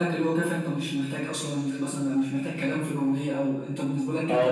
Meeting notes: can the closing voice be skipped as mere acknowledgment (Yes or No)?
No